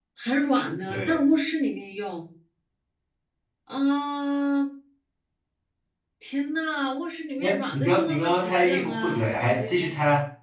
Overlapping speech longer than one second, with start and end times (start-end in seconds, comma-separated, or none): 7.4-9.7